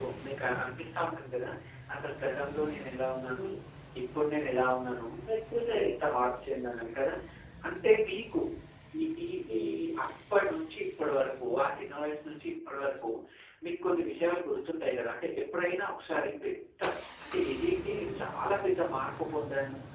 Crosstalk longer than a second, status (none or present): none